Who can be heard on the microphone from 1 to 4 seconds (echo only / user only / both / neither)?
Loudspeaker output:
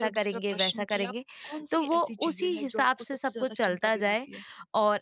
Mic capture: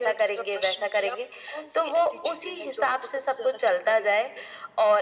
echo only